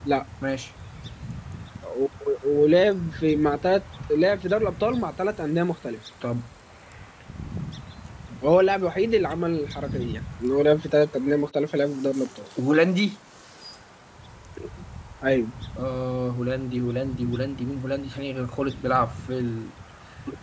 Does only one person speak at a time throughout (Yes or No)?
Yes